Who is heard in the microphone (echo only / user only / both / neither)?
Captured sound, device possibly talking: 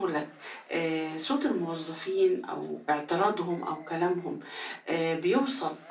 echo only